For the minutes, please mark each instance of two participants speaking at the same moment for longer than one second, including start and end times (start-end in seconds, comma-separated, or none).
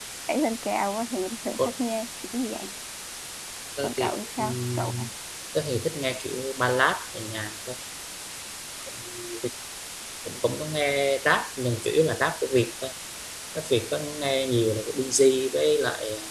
3.8-5.1